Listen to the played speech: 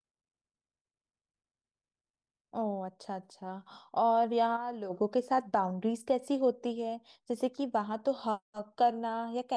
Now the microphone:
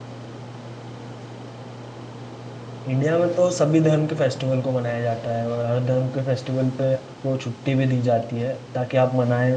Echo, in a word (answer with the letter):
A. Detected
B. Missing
B